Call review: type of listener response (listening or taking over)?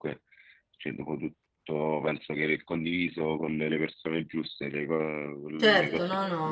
taking over